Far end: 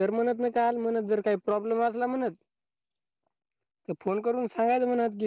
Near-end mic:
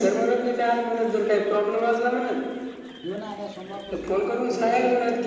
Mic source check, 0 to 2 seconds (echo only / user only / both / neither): echo only